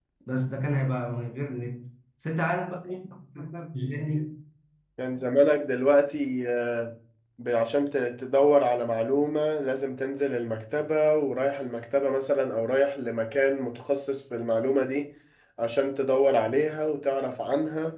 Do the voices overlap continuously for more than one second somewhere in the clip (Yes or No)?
No